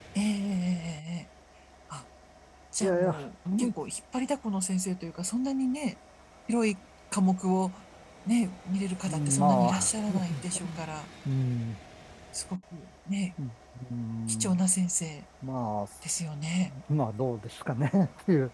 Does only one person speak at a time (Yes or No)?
No